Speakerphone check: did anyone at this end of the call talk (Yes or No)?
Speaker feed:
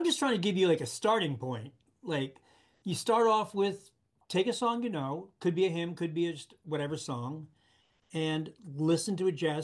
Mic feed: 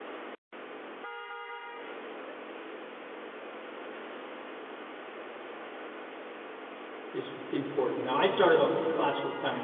Yes